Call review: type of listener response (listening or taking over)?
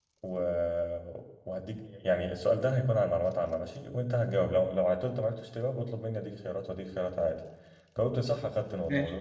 listening